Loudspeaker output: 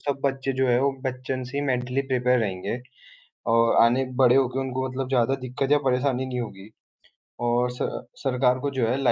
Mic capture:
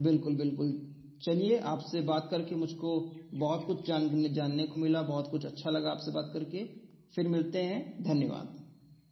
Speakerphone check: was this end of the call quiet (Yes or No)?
No